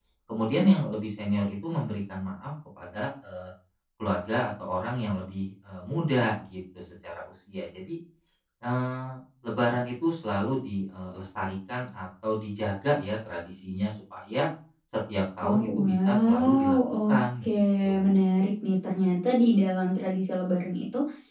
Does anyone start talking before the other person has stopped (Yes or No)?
Yes